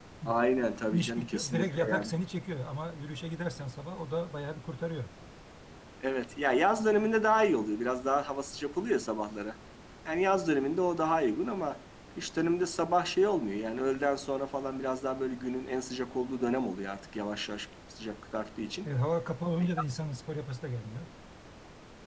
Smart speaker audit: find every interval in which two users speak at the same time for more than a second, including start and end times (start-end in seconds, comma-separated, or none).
0.9-2.1